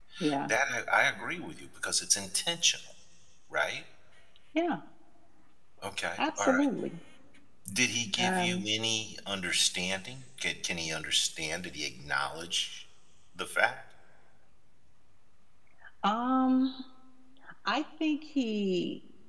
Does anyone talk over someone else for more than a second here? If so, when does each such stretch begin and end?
none

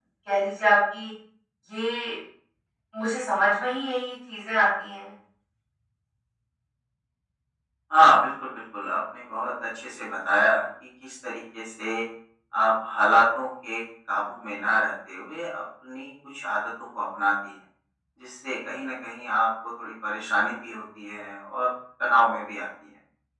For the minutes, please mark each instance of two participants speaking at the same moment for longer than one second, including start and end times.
none

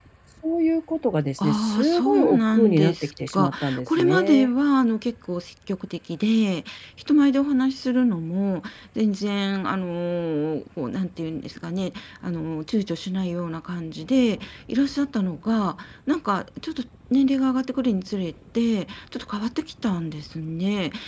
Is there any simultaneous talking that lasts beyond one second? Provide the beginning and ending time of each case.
1.4-4.5

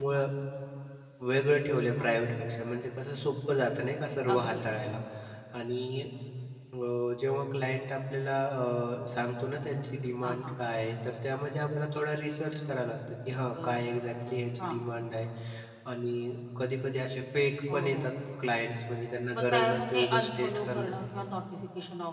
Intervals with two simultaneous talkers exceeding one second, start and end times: 19.3-21.0

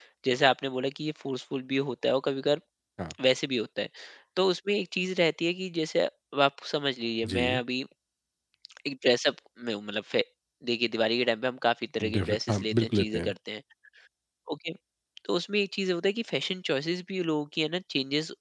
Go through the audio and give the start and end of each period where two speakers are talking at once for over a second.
12.1-13.3

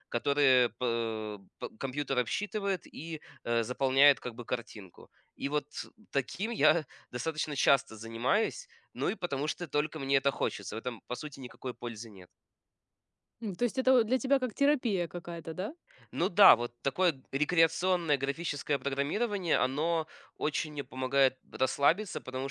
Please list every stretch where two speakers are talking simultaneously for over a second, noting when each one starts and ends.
none

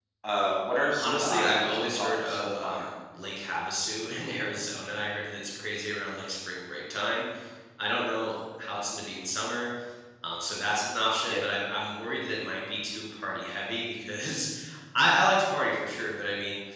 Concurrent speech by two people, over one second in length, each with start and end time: 1.0-2.9

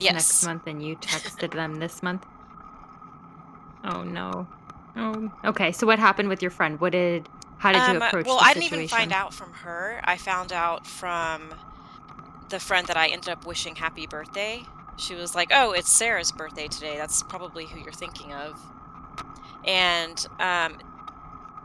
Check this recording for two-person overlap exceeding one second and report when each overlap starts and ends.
7.7-9.1

